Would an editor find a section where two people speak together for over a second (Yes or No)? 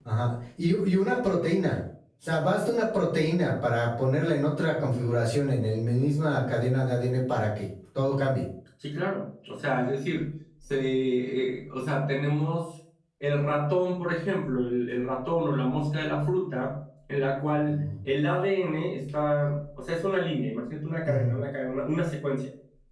No